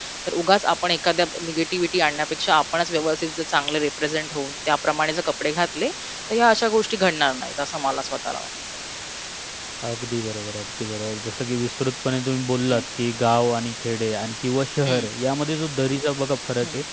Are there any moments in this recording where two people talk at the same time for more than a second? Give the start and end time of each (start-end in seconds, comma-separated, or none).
none